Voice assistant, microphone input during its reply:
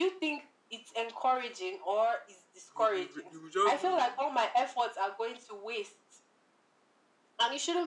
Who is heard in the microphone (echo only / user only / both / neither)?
both